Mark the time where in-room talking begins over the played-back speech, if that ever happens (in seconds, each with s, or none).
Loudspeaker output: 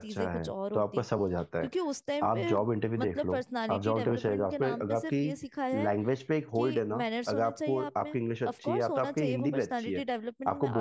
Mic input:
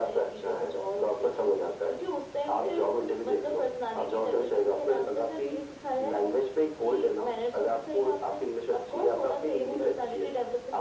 none